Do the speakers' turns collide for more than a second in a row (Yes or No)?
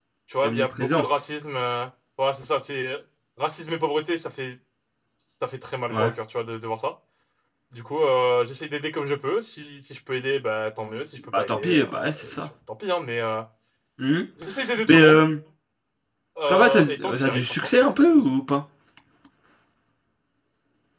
Yes